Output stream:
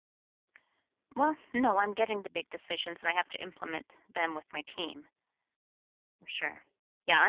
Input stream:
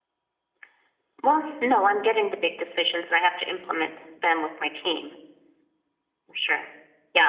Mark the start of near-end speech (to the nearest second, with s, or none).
none